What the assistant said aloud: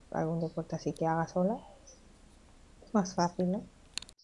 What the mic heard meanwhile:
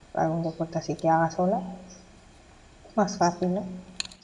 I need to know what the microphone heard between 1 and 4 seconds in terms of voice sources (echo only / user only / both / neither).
echo only